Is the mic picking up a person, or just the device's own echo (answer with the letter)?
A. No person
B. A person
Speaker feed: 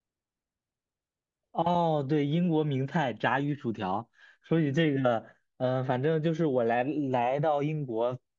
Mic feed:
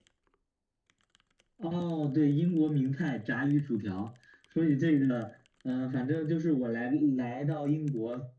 A